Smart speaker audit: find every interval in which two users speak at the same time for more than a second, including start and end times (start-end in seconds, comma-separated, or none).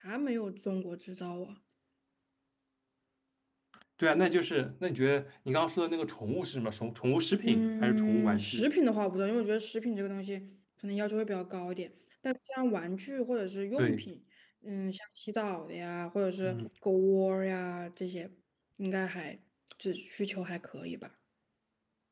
7.4-8.7